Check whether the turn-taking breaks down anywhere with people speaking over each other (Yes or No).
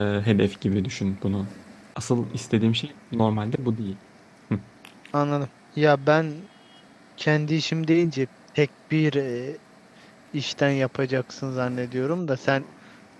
No